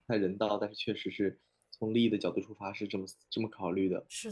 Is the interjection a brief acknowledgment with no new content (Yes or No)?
No